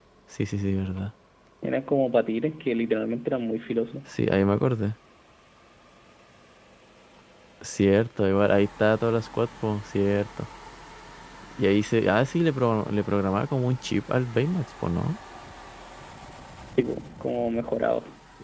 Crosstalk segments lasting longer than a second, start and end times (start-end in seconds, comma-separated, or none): none